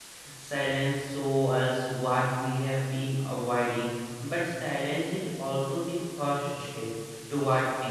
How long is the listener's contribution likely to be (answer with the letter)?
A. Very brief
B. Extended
A